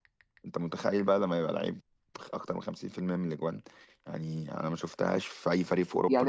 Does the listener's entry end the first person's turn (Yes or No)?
Yes